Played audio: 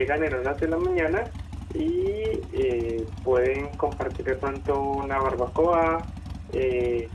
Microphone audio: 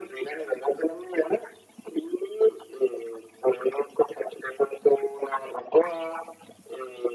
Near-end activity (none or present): none